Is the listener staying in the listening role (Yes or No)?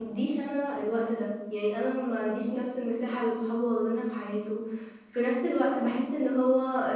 Yes